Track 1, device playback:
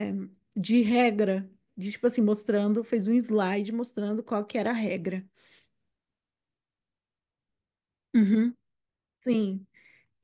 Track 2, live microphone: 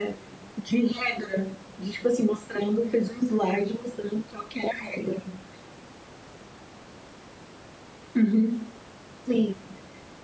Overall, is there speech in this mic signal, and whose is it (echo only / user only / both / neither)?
echo only